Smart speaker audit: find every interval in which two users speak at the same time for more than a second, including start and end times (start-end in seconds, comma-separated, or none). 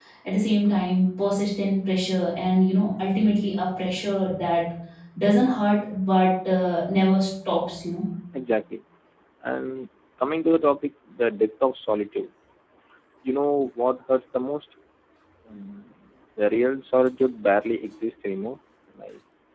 none